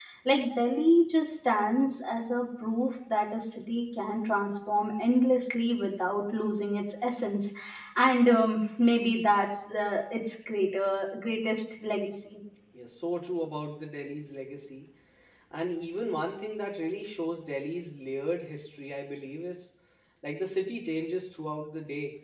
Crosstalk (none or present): none